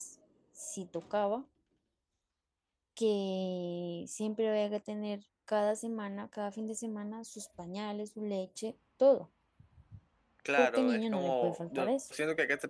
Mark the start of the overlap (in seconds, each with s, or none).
10.6 s